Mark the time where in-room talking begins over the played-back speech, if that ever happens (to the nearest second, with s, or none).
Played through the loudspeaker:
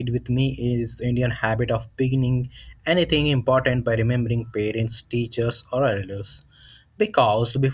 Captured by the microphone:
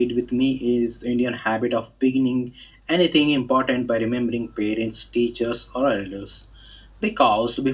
none